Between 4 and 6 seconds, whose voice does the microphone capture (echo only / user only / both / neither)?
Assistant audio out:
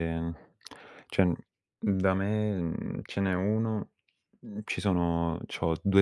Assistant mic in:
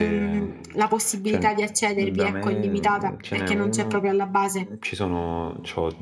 both